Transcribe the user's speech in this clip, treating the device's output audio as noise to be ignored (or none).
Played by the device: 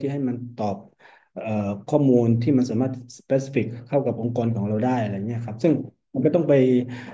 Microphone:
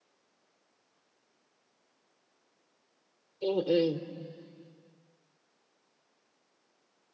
อืมอืม